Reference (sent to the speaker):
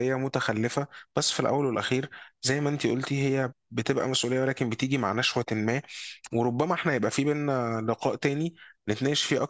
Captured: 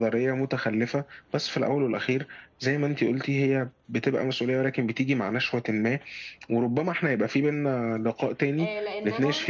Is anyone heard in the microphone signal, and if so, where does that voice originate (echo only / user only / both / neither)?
both